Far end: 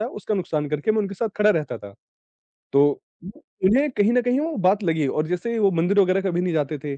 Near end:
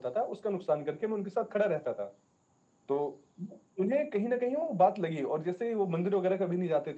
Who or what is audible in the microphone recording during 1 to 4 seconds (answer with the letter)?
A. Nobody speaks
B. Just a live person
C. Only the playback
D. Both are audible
C